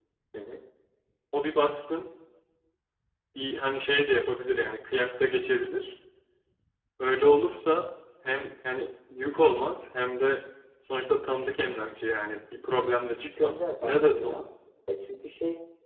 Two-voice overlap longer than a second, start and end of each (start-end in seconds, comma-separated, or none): 13.2-14.4